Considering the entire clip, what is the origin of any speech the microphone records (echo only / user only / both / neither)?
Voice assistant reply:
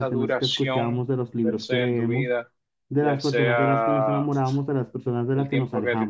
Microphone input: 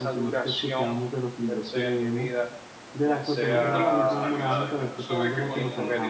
both